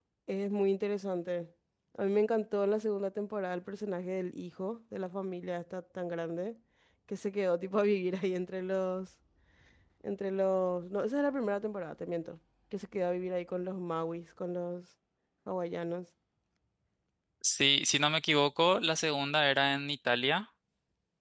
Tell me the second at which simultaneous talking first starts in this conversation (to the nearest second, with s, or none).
none